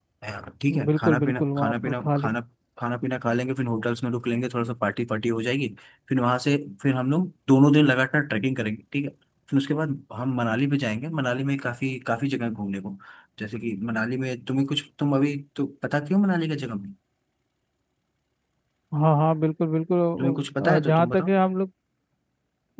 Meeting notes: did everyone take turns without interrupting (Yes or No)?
No